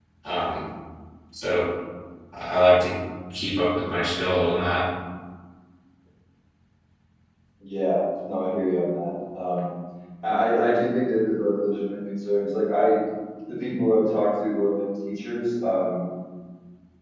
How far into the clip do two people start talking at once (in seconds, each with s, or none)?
none